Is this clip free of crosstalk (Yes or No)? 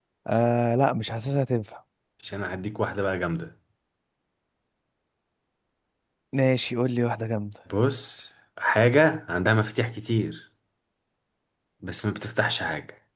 Yes